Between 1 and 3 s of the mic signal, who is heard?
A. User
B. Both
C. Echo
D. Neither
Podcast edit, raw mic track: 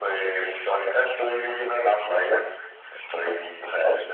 C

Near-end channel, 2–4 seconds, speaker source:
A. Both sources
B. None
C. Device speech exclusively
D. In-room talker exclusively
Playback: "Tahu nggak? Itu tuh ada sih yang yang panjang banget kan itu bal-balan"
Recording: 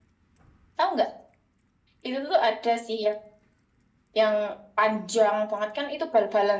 C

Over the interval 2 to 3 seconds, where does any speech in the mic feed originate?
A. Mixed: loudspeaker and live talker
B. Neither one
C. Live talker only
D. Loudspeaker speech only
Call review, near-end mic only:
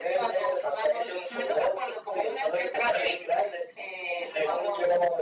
D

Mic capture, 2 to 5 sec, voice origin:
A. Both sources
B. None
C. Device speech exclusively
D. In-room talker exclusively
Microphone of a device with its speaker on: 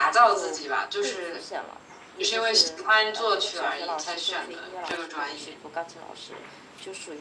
C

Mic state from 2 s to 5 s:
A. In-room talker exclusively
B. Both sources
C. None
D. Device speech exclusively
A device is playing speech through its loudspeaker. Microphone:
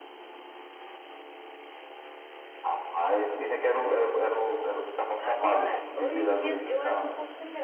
D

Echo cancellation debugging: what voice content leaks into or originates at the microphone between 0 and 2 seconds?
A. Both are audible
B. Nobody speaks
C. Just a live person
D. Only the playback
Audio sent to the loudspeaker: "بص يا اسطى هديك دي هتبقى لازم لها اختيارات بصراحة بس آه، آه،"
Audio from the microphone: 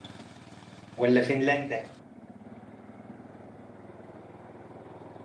C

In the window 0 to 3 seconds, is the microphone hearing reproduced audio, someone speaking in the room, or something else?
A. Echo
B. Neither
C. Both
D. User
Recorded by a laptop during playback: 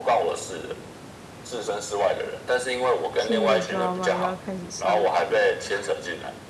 A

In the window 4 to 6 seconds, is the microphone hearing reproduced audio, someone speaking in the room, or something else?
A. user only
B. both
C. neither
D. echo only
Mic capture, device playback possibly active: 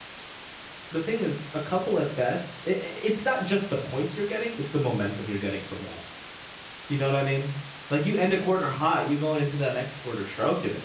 A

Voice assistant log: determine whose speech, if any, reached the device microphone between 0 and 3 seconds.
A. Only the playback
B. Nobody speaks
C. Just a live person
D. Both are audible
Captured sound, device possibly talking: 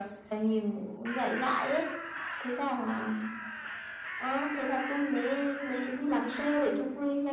A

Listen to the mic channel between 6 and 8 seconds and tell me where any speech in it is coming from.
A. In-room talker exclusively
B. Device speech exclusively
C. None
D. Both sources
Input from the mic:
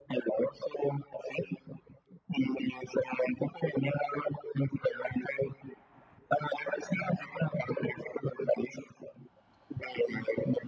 B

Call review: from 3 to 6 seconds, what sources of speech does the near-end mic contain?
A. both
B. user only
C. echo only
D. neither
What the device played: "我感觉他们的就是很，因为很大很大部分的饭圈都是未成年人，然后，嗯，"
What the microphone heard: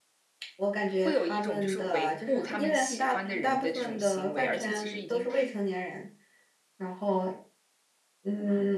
A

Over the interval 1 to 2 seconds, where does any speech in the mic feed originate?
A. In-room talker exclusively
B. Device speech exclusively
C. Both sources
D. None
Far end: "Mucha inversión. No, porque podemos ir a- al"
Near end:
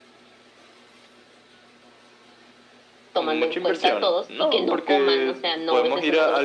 D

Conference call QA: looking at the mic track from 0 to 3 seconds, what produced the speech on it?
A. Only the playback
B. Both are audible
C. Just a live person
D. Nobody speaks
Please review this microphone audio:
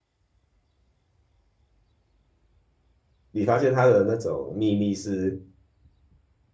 D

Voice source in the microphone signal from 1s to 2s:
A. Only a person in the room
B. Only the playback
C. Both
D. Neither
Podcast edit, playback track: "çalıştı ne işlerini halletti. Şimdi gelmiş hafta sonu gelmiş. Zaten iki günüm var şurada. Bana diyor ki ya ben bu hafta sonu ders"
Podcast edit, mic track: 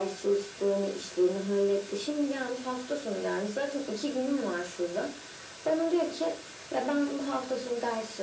B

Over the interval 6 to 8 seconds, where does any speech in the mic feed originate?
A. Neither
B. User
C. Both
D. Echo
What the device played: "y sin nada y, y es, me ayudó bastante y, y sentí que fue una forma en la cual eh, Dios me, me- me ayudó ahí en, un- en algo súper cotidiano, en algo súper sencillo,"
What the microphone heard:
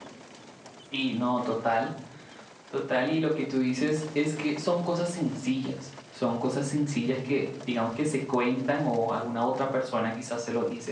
B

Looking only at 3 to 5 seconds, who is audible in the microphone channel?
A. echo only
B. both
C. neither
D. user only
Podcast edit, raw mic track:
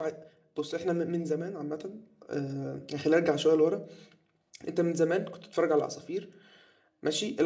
D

